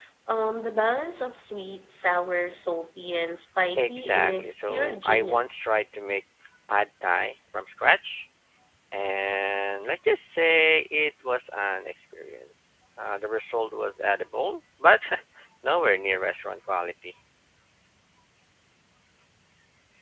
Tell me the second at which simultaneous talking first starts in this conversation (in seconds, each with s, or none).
3.8 s